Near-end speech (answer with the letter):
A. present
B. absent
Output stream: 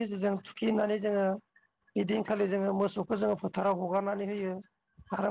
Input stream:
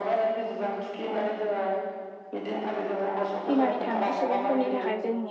A